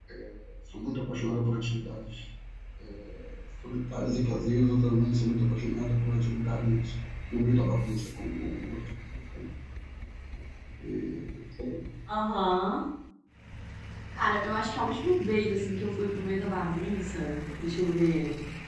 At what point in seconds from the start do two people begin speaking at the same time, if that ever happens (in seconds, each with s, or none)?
none